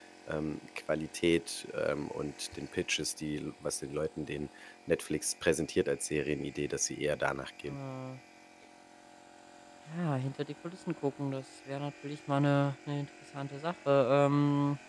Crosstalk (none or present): none